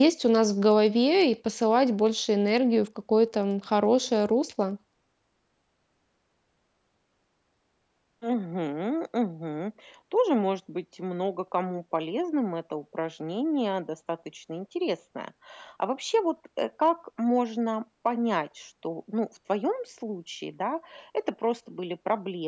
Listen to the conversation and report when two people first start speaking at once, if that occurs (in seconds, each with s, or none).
none